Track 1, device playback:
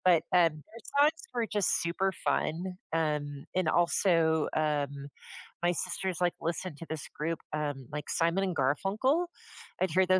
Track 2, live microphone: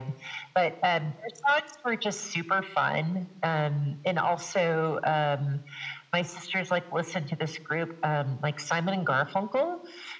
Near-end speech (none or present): none